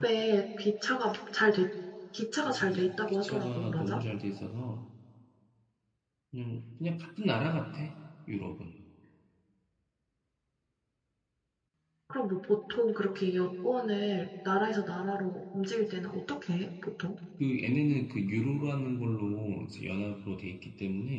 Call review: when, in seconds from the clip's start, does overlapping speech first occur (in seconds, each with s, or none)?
2.5 s